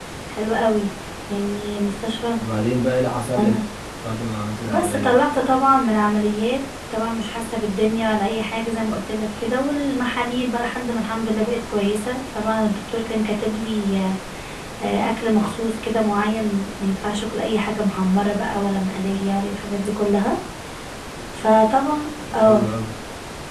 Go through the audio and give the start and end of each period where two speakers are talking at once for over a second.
none

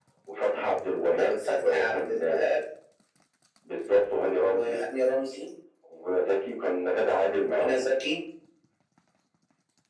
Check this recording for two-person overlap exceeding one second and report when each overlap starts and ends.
1.2-2.5

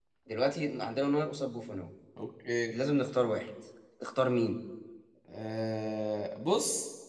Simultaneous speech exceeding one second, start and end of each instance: none

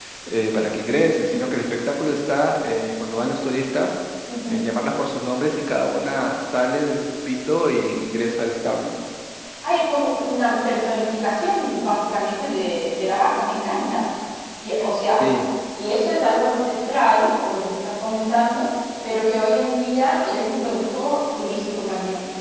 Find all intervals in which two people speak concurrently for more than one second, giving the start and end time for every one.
none

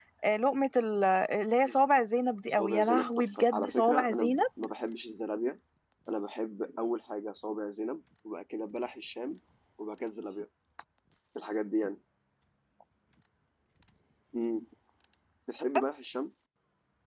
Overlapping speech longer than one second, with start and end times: 2.6-4.4

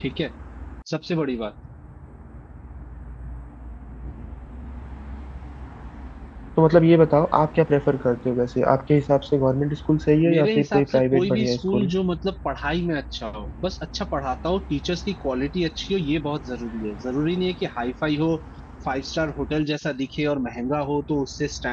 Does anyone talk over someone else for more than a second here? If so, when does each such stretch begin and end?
10.2-11.9

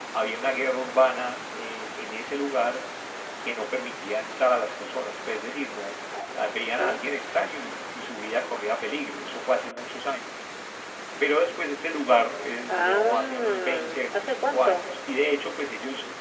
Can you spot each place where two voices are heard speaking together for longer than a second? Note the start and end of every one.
12.7-14.9

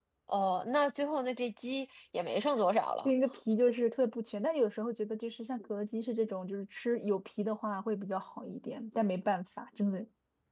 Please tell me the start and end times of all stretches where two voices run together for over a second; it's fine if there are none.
none

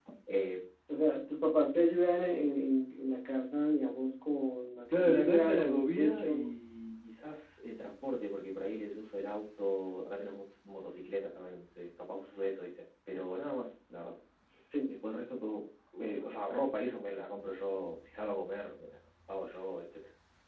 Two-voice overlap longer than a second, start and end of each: 4.9-6.5

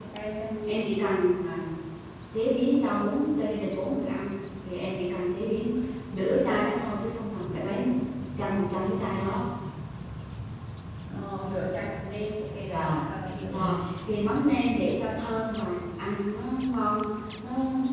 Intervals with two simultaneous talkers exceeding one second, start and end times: none

